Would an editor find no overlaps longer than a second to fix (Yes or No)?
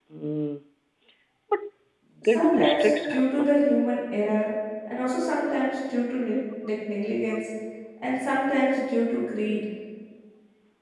No